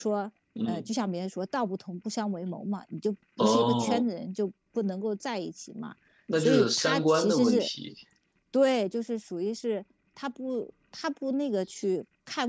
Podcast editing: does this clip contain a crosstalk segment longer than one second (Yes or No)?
Yes